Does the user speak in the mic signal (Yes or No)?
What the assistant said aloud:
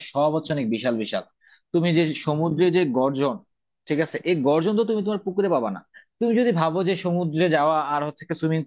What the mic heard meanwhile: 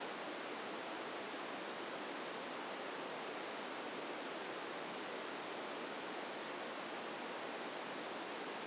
No